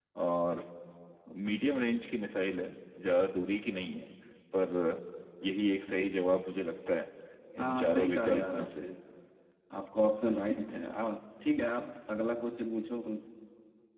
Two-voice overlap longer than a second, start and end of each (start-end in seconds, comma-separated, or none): 7.6-8.8